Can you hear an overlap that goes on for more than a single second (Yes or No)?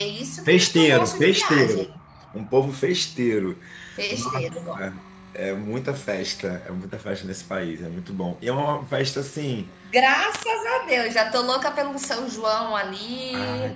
Yes